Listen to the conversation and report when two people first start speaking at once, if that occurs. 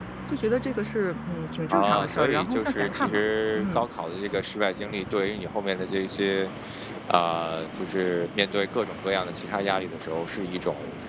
1.7 s

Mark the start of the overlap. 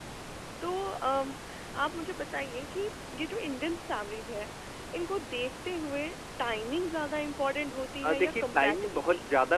8.0 s

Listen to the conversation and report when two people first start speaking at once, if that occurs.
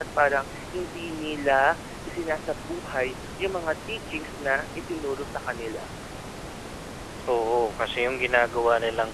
none

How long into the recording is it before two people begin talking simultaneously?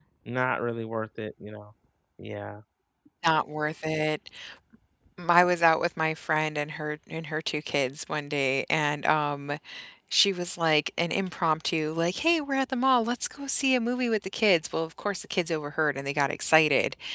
none

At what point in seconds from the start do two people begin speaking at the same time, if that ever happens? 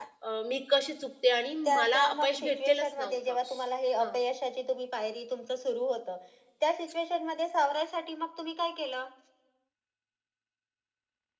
1.6 s

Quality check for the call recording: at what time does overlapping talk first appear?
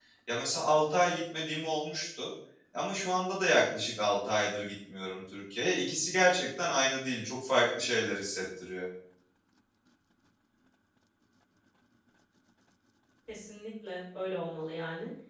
none

